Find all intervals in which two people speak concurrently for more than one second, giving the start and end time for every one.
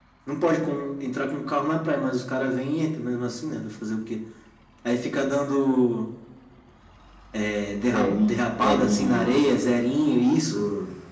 7.9-9.5

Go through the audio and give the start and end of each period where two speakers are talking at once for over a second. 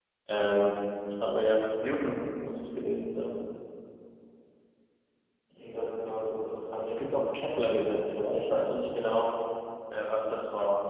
none

